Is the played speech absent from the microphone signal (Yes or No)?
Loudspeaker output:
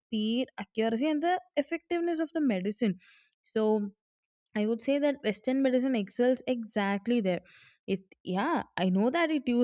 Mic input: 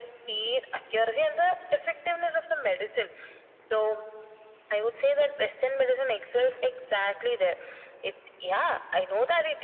No